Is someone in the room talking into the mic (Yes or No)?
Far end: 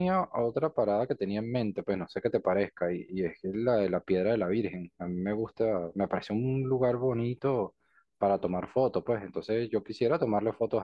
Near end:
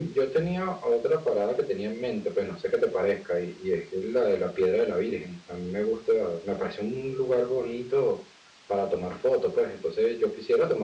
No